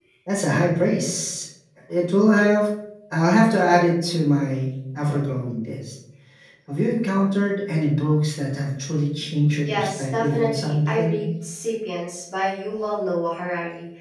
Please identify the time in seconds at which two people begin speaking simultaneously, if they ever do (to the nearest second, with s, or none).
10 s